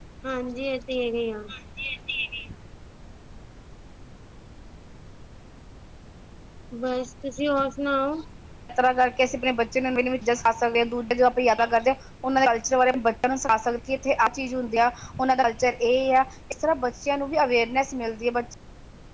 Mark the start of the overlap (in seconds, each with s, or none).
none